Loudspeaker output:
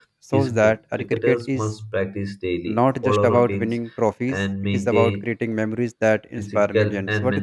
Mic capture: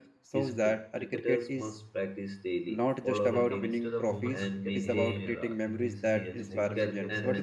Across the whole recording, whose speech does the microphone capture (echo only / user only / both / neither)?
both